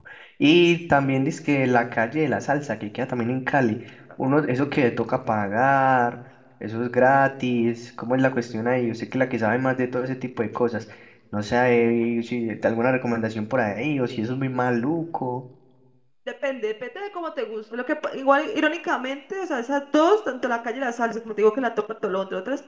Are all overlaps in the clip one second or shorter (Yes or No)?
Yes